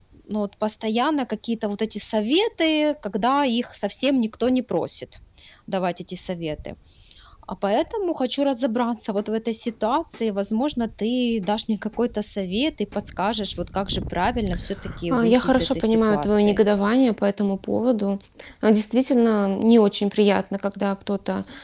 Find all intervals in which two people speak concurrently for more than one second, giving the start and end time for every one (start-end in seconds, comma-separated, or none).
15.1-16.6